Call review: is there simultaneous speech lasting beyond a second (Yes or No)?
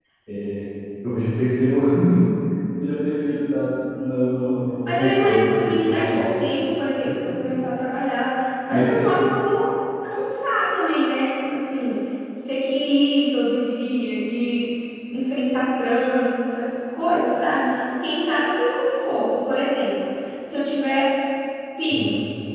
Yes